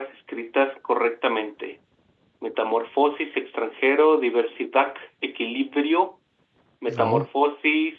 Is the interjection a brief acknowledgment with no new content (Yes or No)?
Yes